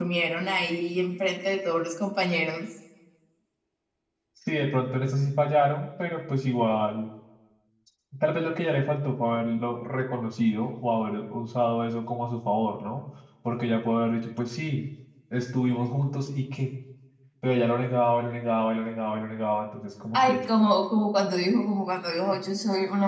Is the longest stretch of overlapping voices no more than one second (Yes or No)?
Yes